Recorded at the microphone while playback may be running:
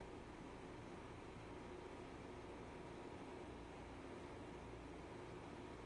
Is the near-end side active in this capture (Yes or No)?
No